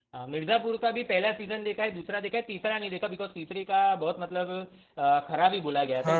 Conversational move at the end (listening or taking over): taking over